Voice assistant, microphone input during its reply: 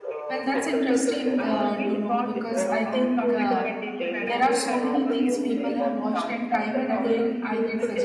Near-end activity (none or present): present